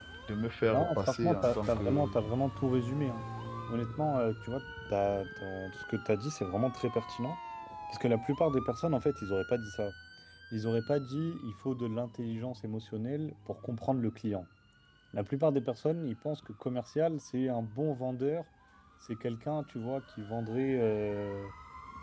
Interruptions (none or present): present